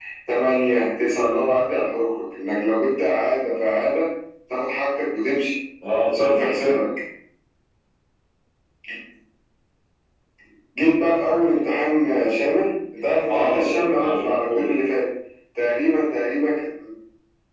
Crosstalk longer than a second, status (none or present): present